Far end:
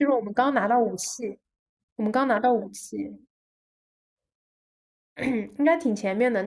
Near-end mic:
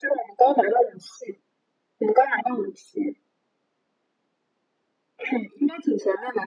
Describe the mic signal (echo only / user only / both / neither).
echo only